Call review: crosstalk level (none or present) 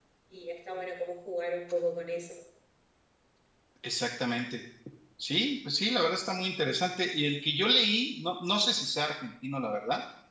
none